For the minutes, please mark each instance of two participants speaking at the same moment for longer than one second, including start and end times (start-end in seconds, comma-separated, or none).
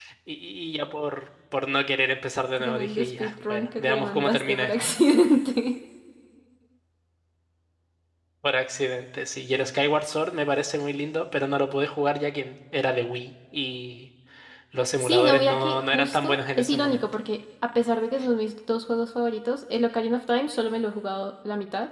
2.6-4.7, 15.0-17.0